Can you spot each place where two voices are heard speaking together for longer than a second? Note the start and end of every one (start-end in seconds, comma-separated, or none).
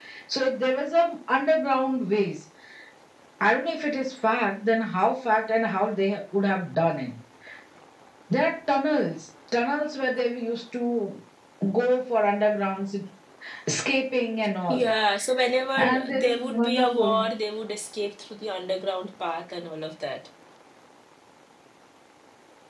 15.8-17.2